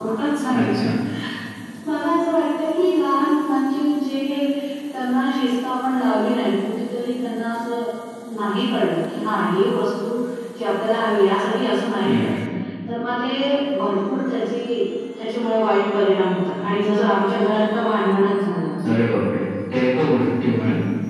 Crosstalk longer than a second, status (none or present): none